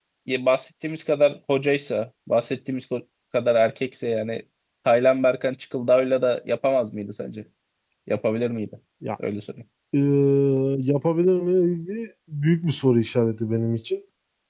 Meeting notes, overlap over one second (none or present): none